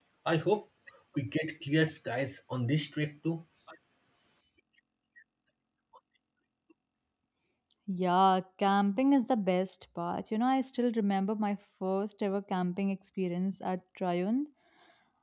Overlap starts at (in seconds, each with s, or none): none